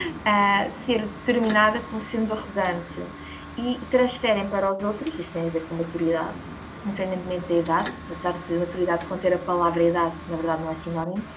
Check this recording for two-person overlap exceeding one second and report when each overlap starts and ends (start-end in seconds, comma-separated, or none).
none